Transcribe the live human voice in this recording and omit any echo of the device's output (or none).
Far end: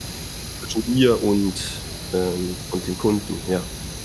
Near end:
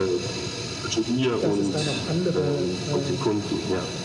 dass es da noch andere, äh